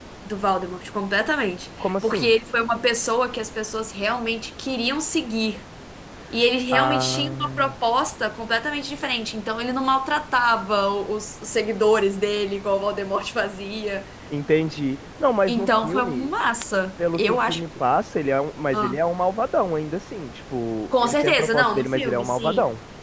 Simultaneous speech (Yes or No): Yes